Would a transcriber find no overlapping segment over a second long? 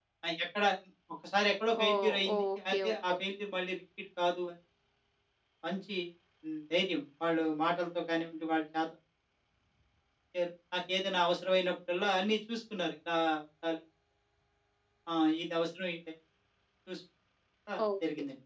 No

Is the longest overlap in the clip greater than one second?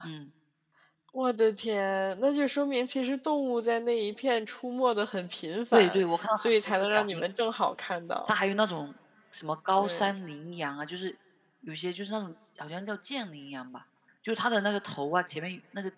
Yes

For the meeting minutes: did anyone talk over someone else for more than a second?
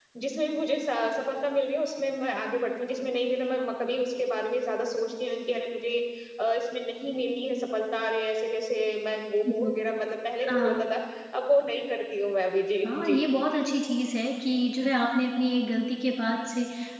No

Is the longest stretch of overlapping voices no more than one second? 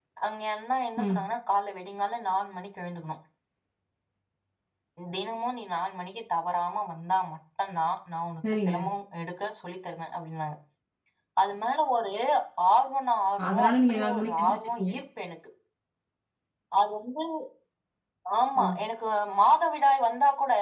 No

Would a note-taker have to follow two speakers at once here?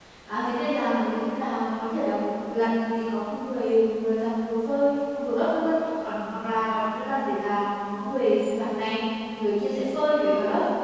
No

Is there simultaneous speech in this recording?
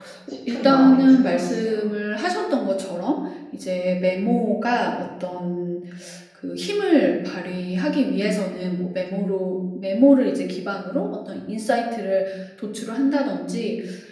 Yes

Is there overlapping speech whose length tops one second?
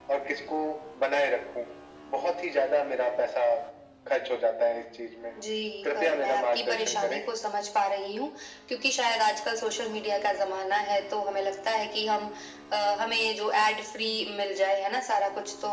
Yes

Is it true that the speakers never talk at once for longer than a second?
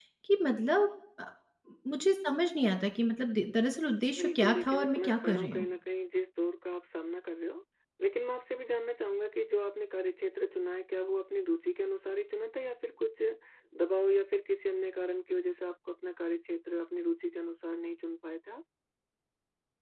No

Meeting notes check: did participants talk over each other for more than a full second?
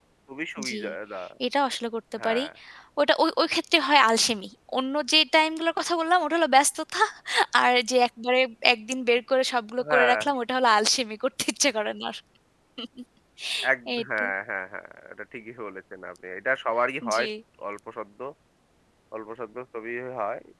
No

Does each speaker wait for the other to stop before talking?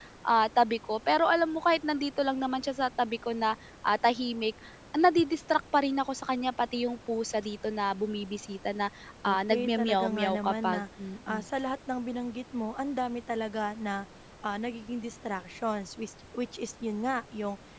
No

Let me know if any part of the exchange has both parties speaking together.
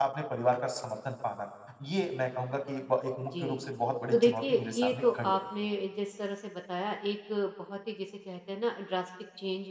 Yes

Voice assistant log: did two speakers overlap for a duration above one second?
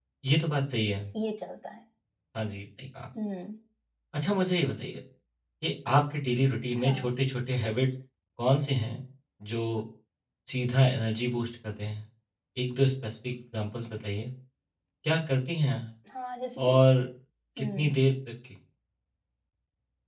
No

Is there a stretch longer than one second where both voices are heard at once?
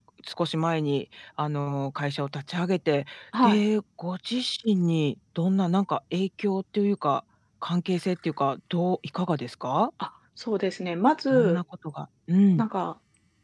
No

